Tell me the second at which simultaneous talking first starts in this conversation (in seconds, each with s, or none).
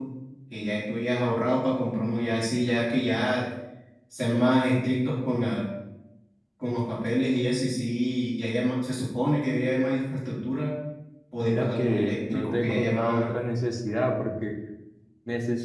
11.4 s